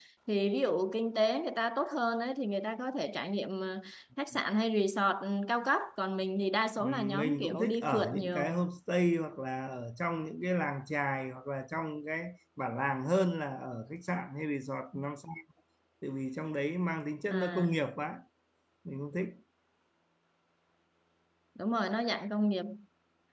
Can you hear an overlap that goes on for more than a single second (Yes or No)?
Yes